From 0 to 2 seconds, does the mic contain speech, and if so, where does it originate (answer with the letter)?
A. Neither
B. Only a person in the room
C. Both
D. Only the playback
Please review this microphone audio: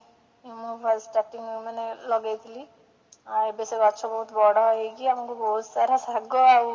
D